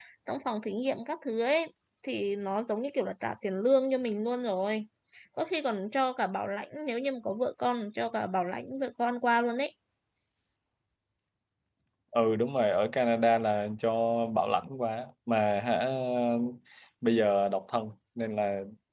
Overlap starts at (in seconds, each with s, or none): none